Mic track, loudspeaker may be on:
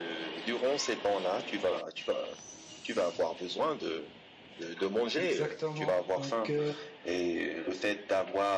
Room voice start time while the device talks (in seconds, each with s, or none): 5.2 s